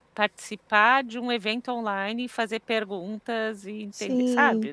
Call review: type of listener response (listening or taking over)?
taking over